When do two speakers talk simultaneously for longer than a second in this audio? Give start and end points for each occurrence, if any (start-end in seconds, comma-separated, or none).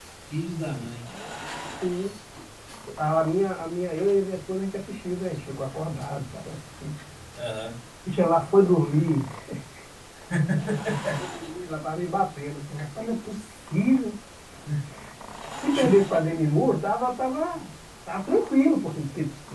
none